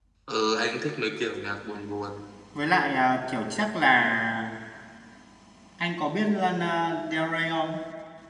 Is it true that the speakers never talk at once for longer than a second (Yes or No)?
Yes